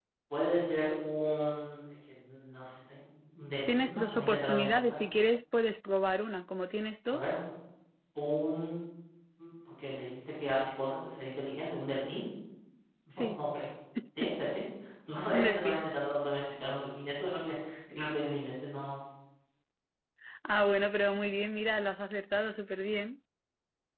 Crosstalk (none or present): present